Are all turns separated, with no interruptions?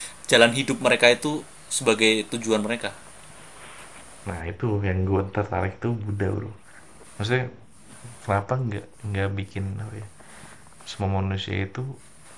Yes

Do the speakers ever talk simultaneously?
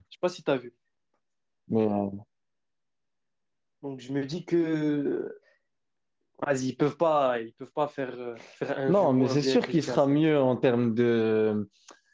Yes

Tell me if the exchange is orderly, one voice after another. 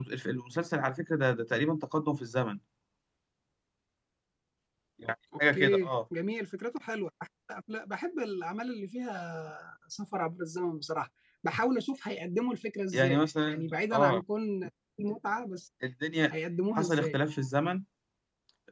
No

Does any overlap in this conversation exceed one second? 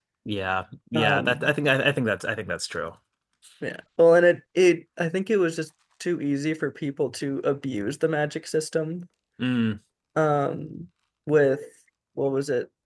No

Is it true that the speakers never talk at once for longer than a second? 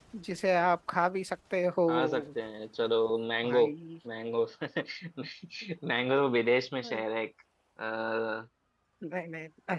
Yes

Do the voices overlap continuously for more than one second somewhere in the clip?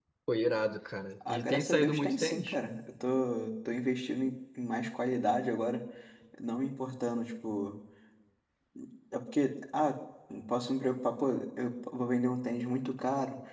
Yes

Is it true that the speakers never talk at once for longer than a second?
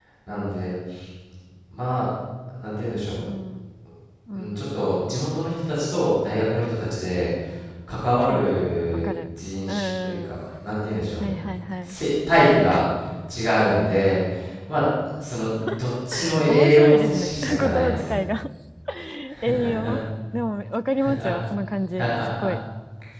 No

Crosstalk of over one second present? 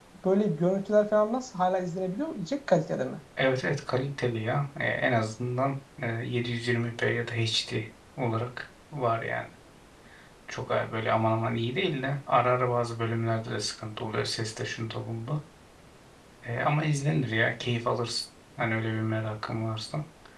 No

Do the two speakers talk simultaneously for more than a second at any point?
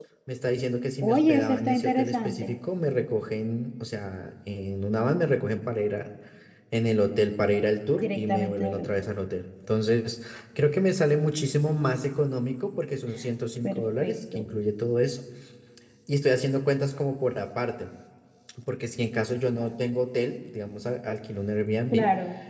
Yes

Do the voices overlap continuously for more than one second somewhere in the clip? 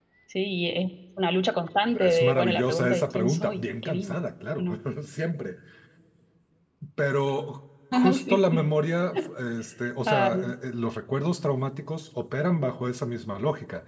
Yes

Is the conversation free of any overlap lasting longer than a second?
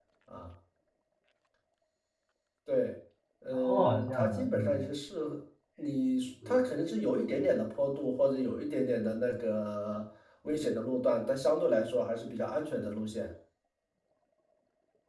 No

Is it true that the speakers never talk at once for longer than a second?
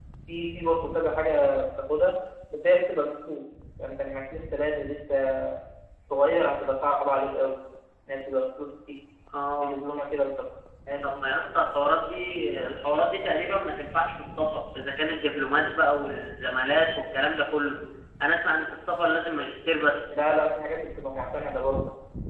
Yes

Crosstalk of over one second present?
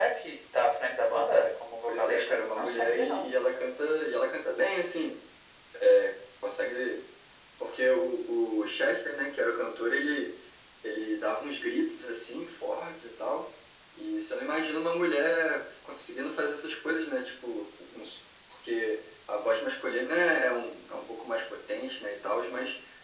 Yes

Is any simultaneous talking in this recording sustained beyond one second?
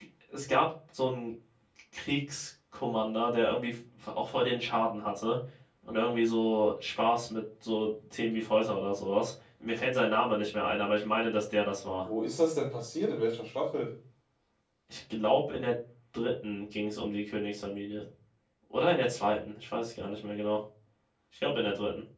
No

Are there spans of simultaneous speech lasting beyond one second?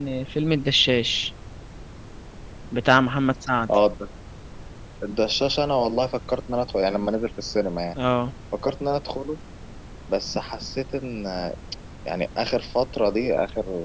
No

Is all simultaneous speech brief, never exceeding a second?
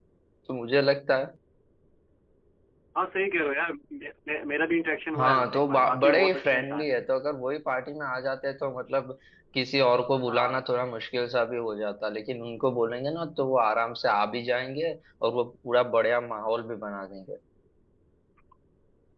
No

